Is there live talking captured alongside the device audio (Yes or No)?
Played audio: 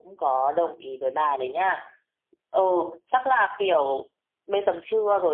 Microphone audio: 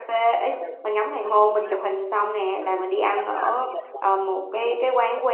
Yes